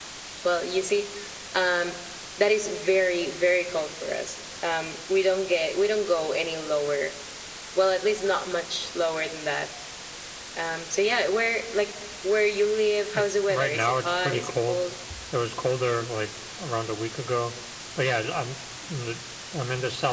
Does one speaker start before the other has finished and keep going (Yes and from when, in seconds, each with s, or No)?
Yes, from 13.1 s